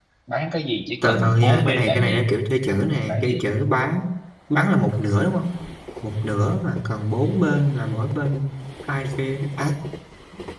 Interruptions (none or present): present